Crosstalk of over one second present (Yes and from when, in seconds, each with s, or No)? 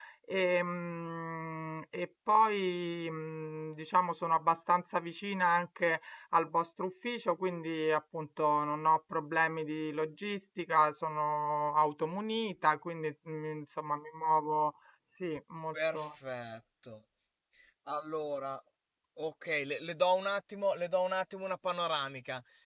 No